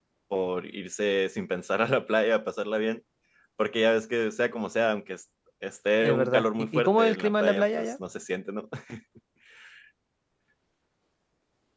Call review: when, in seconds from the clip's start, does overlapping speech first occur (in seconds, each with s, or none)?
6.0 s